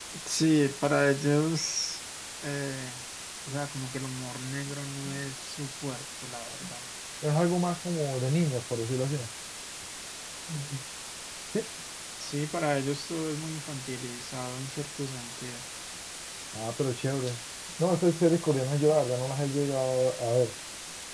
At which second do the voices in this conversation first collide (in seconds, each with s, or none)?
none